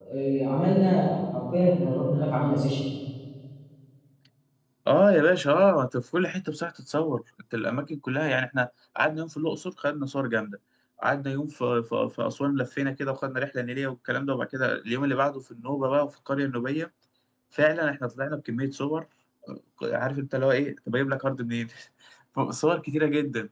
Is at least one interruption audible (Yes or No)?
No